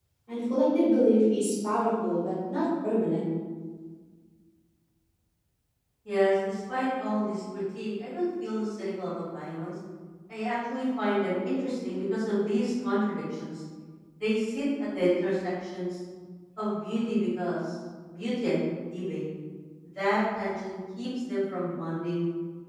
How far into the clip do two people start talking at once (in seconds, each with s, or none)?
none